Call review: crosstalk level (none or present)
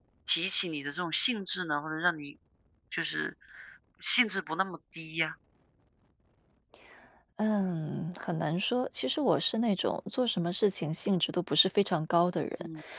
none